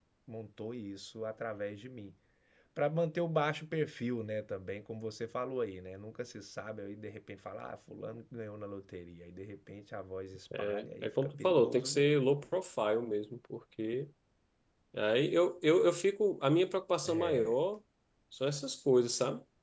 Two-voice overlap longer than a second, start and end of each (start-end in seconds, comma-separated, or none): 10.6-12.1